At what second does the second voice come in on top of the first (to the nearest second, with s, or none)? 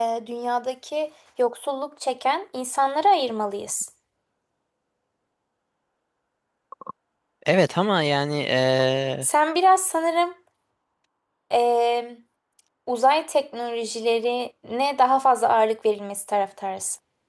none